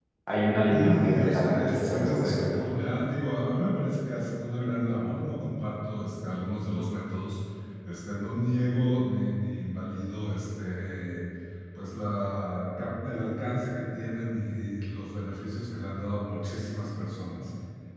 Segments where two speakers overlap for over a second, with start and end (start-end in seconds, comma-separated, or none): 0.7-2.7